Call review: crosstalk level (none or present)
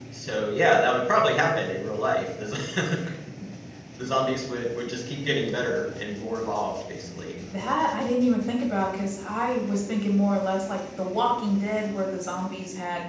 none